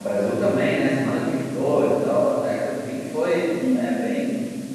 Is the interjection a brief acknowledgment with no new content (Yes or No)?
Yes